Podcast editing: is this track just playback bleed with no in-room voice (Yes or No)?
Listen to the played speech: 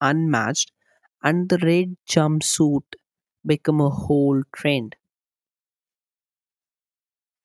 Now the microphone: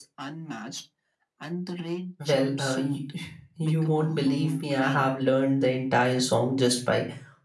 No